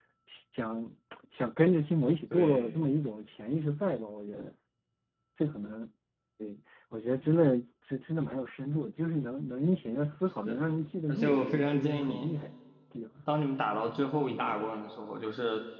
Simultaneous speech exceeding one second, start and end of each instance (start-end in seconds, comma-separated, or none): 11.1-12.3